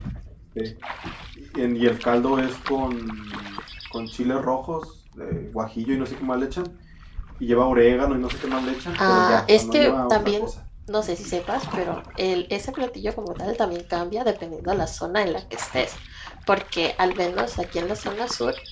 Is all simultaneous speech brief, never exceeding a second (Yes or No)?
No